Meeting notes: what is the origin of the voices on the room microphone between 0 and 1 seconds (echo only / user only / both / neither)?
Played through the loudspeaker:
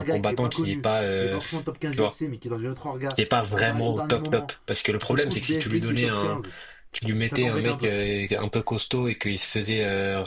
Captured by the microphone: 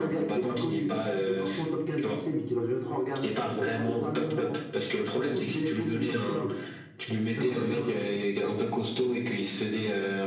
echo only